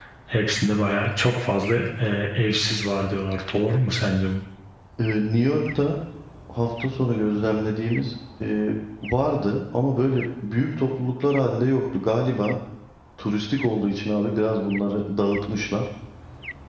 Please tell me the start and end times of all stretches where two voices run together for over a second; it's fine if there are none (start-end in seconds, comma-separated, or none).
none